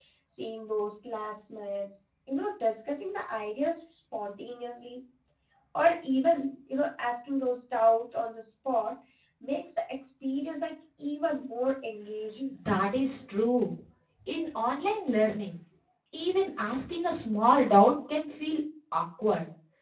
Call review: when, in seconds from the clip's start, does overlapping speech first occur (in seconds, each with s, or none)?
none